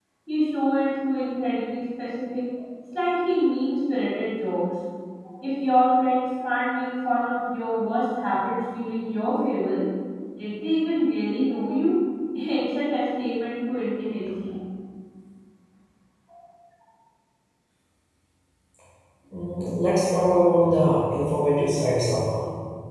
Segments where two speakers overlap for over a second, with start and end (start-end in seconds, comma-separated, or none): none